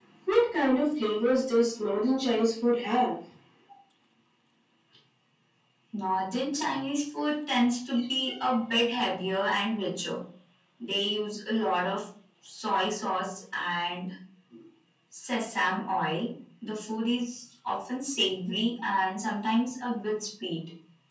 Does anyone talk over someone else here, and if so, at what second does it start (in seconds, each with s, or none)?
none